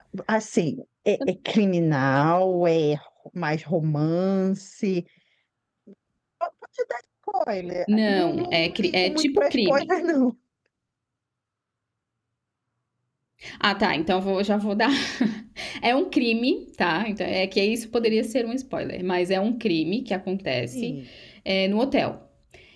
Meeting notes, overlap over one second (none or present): present